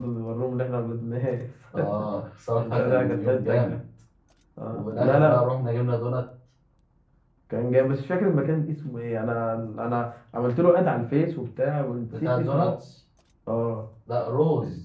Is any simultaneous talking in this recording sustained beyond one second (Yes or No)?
Yes